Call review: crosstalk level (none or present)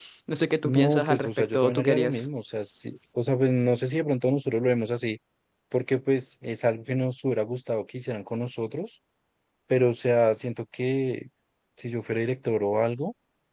present